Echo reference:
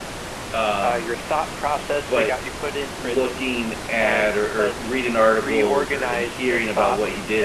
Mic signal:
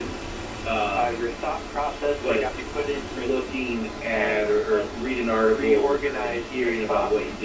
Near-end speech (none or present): none